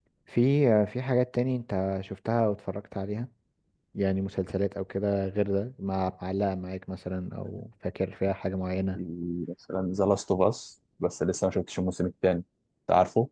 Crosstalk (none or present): none